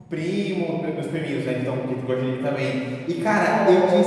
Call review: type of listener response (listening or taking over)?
listening